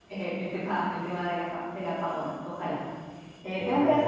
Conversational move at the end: listening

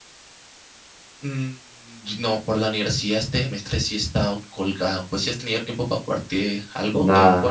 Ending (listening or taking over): taking over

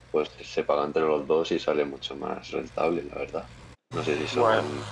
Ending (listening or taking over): listening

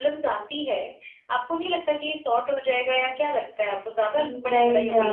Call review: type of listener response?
taking over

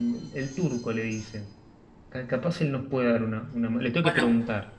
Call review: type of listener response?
taking over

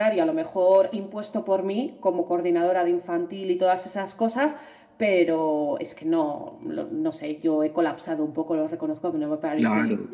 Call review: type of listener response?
taking over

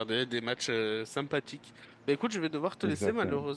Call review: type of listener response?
listening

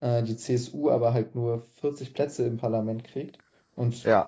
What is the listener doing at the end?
listening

